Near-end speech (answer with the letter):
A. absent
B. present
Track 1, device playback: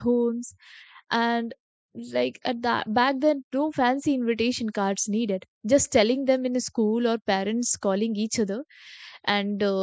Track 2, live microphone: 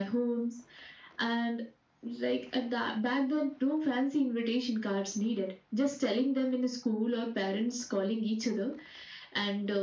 A